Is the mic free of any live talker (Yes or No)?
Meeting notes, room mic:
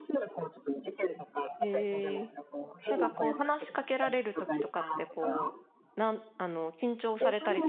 No